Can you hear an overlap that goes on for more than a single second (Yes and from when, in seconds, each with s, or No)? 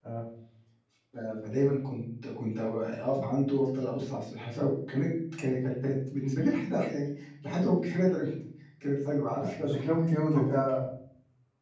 No